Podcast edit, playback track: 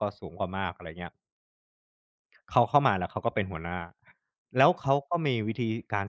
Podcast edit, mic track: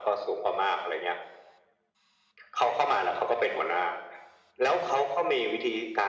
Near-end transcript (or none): none